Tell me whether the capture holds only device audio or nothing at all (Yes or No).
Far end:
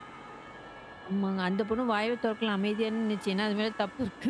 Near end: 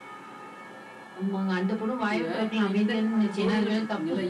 No